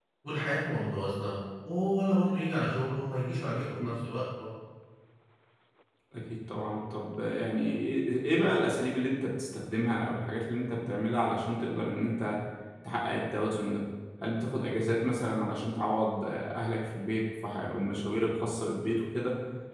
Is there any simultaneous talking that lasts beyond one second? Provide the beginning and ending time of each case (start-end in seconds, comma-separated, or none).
none